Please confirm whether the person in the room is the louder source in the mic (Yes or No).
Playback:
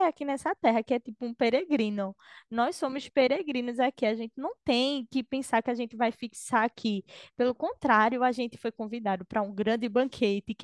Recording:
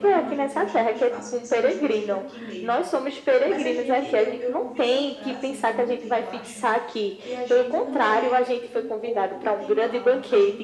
No